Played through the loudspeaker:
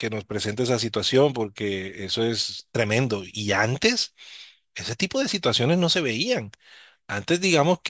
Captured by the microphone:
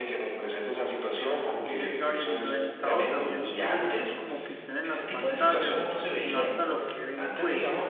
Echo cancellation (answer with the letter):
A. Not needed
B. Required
B